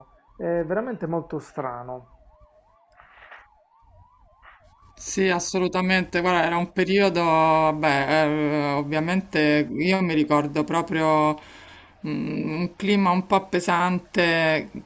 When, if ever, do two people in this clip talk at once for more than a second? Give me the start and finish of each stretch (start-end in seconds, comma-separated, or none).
none